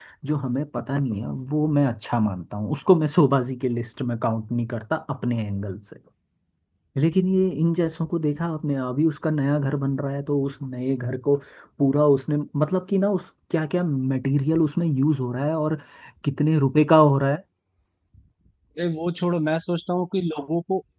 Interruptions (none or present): none